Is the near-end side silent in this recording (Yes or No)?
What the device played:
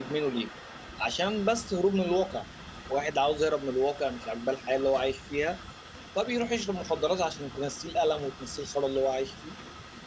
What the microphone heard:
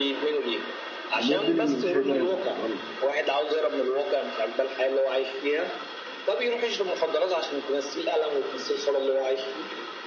No